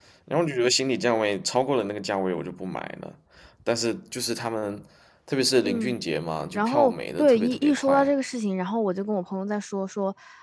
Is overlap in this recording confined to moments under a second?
No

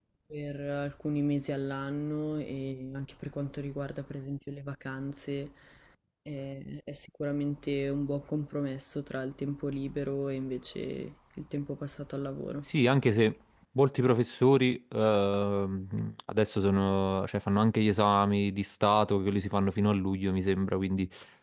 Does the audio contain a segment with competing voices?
No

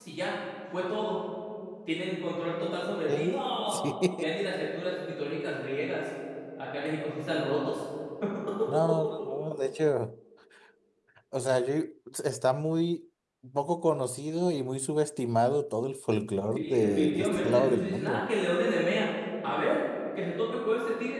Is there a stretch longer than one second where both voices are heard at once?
Yes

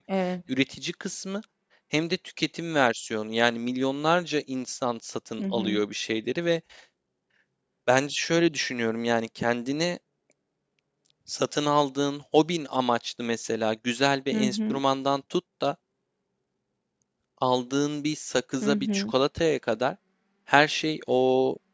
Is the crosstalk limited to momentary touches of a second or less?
Yes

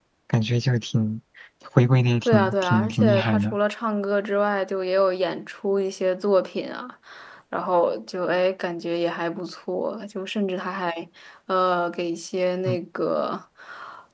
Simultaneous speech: Yes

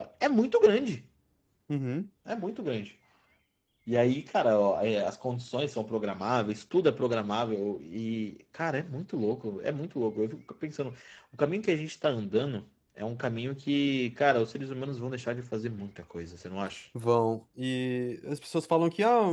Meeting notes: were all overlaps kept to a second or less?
Yes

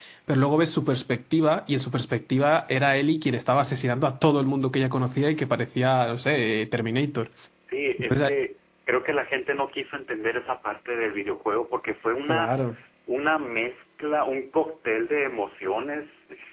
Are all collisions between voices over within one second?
Yes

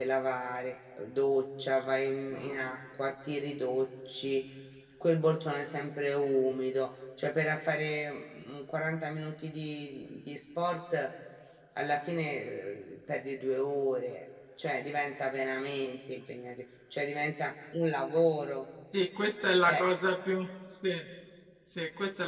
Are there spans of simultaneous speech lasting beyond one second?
No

